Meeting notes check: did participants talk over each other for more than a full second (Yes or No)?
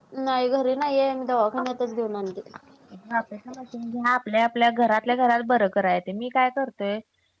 No